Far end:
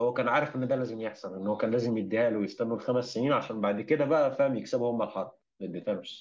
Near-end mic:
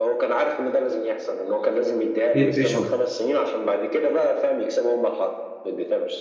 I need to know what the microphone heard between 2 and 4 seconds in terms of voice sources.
both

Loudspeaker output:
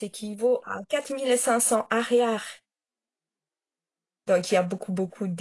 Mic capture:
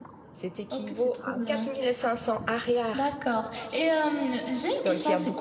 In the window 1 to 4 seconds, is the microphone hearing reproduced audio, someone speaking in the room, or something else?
both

